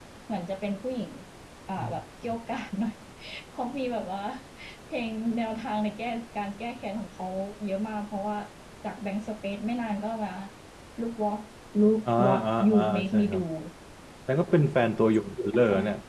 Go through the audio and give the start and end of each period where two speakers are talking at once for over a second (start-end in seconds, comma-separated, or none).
12.1-13.4